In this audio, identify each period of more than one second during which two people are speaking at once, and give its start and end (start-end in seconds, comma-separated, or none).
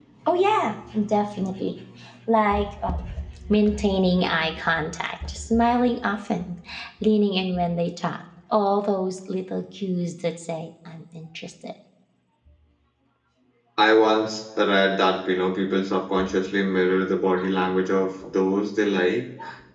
none